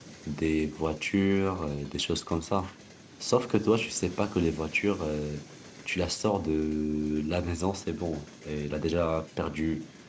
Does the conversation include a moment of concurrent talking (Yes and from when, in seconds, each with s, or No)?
No